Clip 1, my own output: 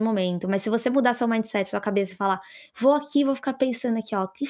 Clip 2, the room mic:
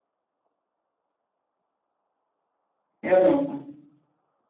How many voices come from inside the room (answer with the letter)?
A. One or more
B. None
A